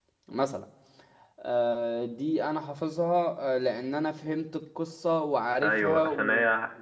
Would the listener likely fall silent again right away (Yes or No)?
No